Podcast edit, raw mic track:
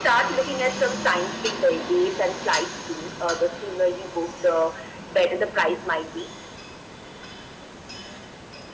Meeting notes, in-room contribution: none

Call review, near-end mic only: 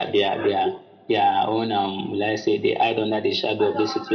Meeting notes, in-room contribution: none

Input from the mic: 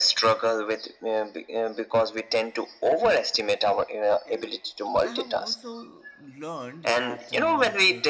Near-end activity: present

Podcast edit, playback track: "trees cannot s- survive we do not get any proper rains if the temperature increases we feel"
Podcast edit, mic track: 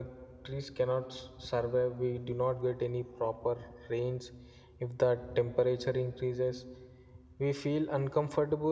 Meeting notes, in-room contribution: none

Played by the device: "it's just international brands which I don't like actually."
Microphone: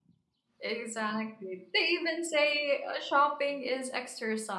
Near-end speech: present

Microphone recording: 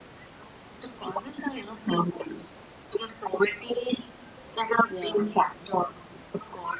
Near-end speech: present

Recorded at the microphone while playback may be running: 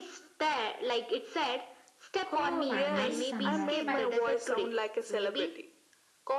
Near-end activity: present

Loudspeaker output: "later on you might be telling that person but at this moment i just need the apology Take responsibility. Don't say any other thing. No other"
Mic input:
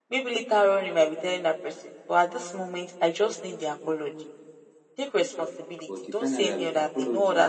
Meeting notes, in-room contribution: present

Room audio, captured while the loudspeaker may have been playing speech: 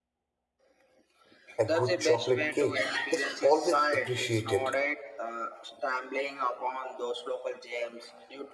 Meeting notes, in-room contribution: present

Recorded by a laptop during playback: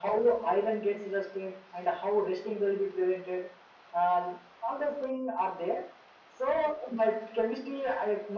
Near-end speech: none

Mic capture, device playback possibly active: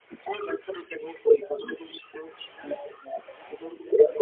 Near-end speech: none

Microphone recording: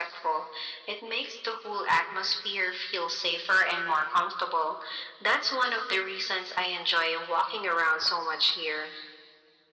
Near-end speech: none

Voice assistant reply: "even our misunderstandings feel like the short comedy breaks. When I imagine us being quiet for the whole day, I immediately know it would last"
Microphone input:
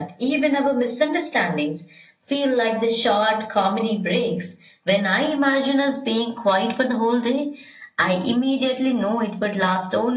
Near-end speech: none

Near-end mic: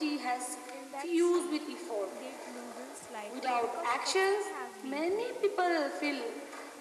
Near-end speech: present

